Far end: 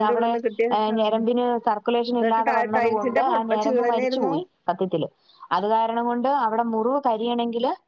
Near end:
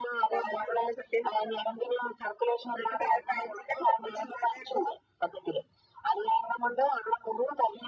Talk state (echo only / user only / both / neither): echo only